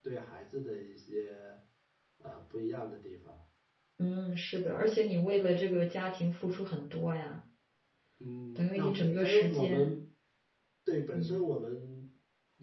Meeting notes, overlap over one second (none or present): present